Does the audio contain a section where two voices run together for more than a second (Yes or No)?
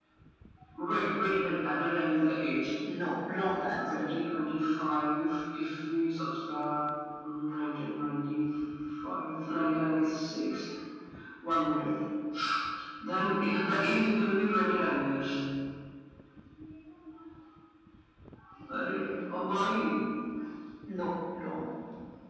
No